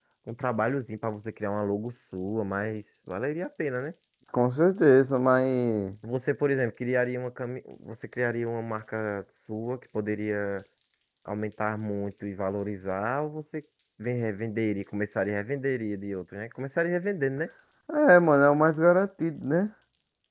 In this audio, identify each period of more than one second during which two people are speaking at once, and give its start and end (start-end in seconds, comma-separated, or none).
none